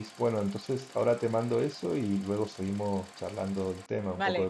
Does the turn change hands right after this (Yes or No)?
Yes